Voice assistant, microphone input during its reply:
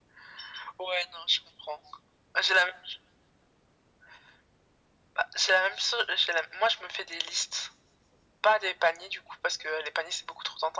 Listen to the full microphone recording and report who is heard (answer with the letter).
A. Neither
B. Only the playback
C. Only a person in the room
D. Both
B